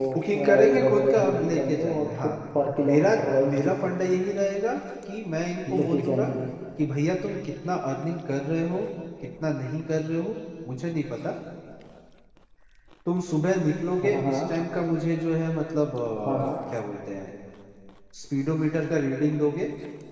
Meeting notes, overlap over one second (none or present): present